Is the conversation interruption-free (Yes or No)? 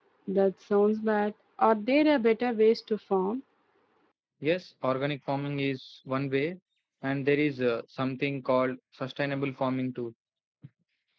Yes